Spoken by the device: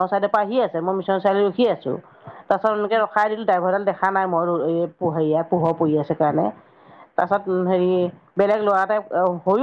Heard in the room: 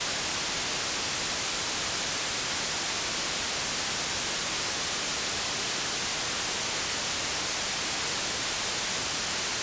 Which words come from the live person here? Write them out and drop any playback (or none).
none